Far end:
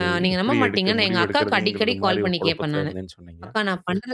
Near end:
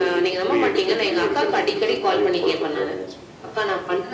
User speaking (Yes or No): No